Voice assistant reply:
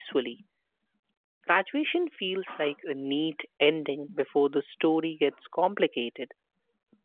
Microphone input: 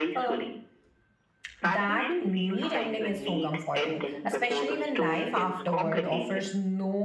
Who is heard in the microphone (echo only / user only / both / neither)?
both